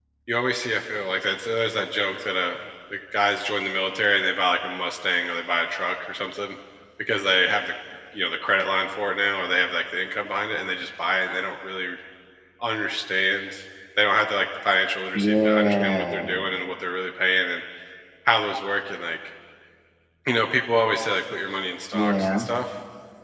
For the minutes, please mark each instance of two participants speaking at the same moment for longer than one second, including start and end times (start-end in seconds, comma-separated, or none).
15.2-16.5